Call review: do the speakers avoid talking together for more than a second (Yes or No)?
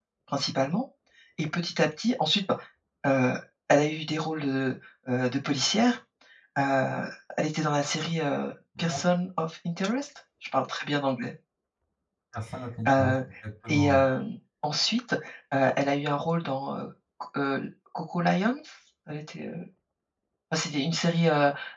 Yes